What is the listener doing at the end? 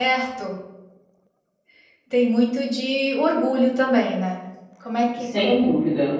taking over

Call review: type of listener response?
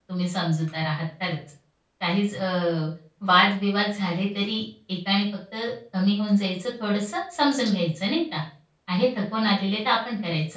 listening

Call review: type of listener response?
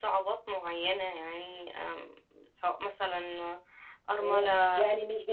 taking over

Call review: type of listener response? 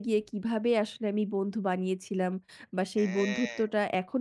listening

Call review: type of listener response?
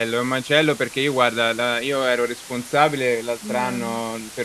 listening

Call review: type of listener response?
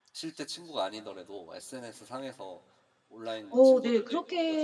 taking over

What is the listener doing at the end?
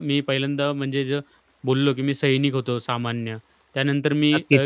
taking over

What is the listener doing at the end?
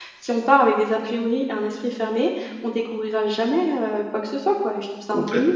taking over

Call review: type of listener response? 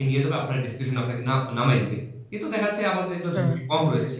listening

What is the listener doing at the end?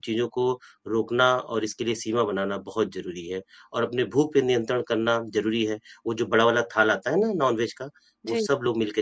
listening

